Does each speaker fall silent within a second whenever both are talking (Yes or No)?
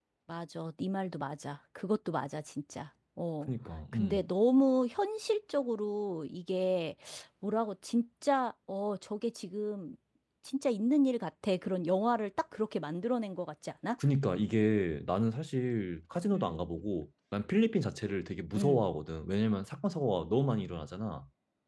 Yes